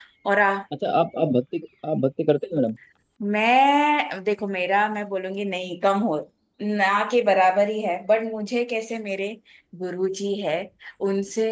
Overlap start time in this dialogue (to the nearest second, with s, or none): none